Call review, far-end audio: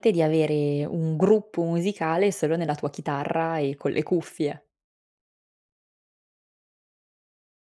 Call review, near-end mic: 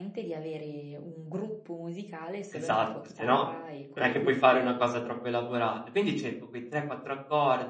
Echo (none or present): present